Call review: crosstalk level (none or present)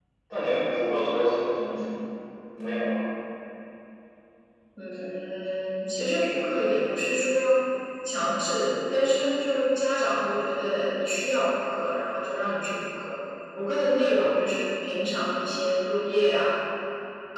none